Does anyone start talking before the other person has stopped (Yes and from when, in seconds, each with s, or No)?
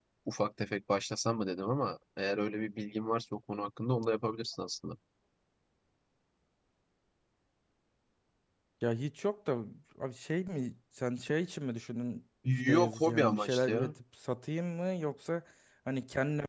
Yes, from 12.4 s